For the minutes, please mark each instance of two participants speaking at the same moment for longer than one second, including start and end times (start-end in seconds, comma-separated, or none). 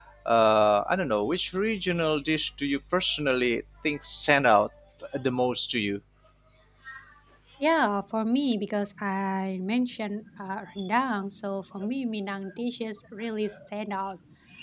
none